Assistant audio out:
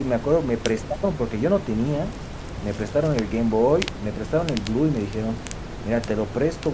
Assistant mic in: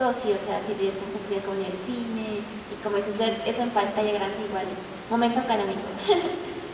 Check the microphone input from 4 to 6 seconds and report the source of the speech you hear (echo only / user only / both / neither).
user only